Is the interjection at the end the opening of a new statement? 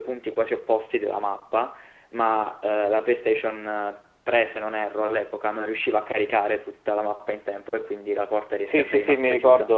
Yes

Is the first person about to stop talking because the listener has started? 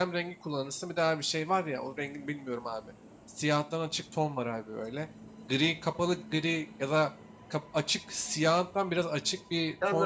Yes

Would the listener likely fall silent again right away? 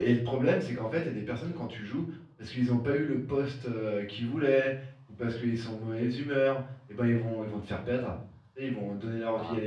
Yes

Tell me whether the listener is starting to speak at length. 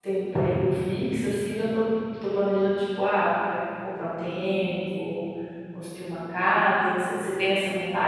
Yes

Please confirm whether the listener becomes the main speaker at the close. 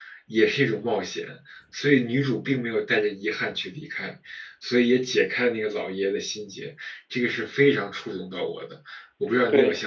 Yes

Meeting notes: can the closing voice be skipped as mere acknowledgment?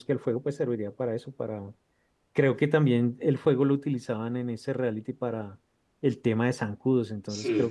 Yes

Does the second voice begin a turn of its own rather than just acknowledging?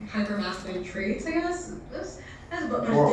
No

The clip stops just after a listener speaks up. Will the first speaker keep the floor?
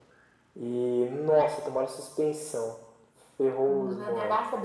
No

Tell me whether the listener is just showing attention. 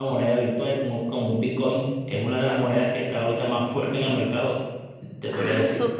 No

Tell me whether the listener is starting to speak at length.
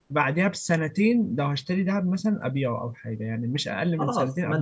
Yes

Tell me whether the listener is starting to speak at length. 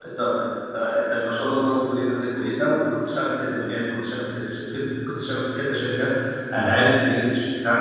No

